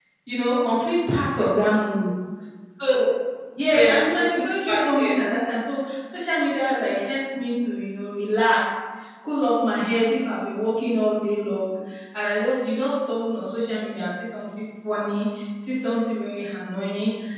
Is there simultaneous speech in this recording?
Yes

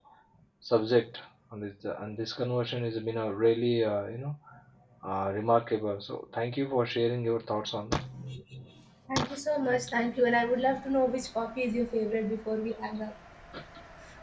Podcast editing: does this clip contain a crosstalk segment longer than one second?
No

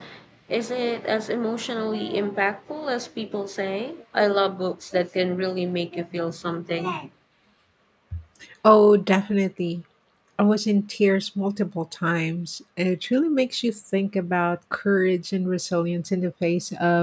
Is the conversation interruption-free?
Yes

